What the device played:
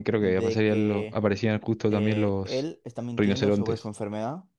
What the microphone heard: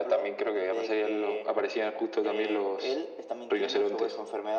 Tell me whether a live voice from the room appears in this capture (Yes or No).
No